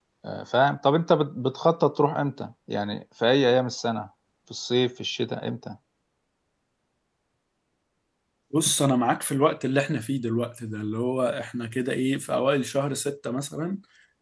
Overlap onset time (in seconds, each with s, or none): none